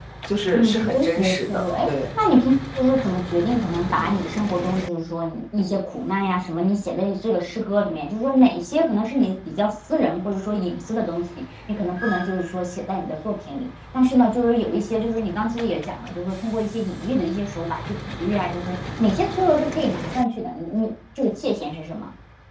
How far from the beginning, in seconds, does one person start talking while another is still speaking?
0.5 s

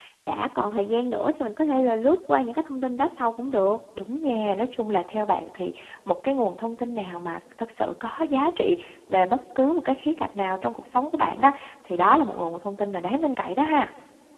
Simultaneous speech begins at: none

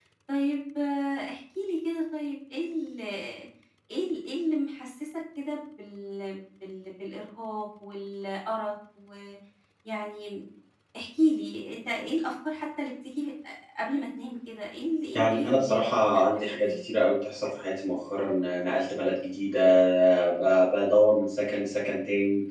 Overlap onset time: 15.1 s

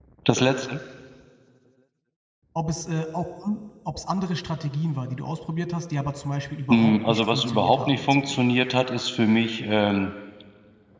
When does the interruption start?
6.7 s

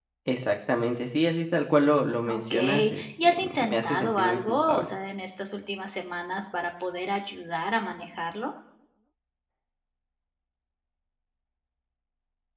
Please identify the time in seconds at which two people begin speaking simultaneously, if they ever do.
2.2 s

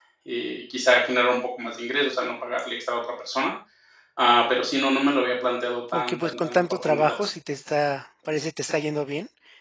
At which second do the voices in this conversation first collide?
5.9 s

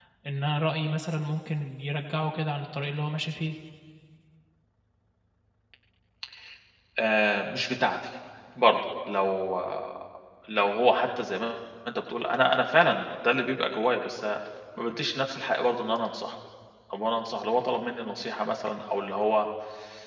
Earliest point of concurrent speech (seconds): none

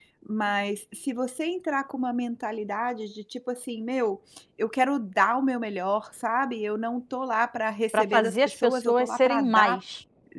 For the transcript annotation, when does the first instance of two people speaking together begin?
7.9 s

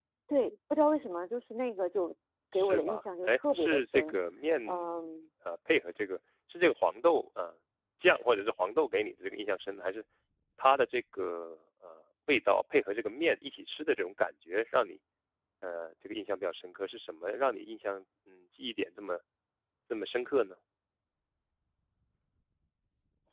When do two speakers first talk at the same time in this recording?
2.5 s

